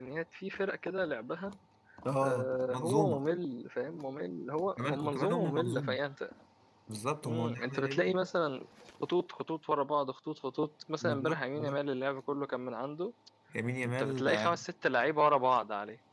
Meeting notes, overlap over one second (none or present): present